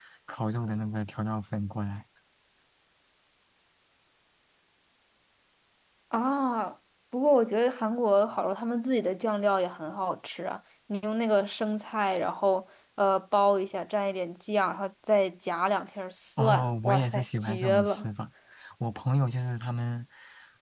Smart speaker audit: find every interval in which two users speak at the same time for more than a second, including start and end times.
16.4-18.1

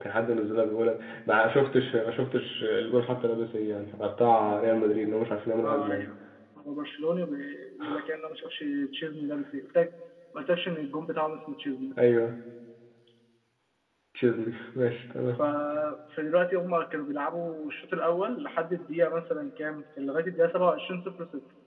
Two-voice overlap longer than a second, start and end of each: none

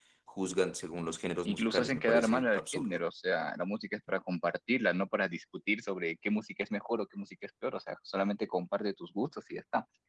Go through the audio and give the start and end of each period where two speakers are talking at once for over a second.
1.4-3.0

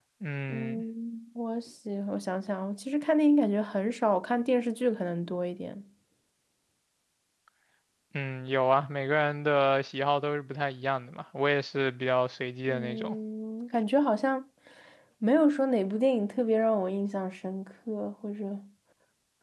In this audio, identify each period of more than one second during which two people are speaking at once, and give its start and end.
none

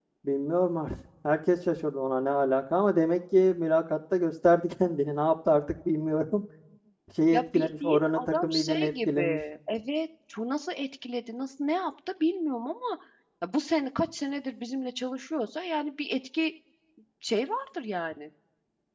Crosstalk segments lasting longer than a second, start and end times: 7.3-9.4

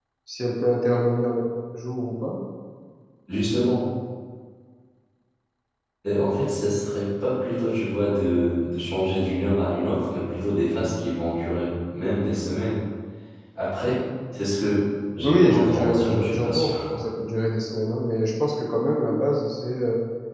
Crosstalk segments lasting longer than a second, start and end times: 15.2-16.7

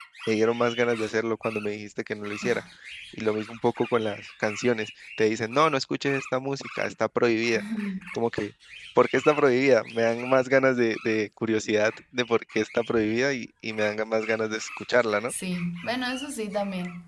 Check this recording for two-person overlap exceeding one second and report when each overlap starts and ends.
none

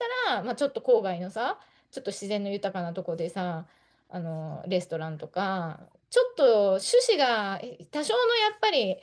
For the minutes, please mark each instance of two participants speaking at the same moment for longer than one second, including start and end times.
none

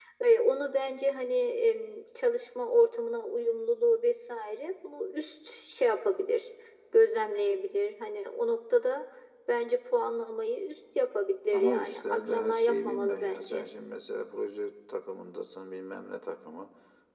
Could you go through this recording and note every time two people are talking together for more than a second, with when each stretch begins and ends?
11.5-13.6

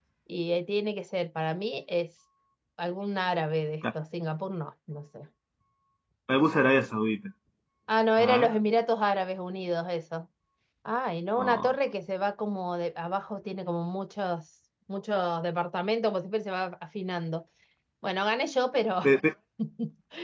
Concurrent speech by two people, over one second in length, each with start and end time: none

